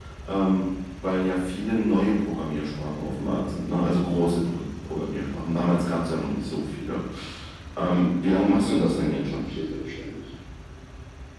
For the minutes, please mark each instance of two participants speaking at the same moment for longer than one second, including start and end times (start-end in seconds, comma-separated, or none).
8.3-9.5